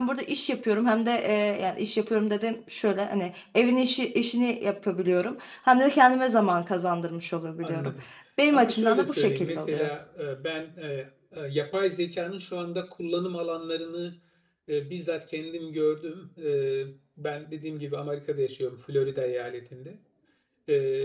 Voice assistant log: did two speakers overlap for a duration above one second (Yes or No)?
Yes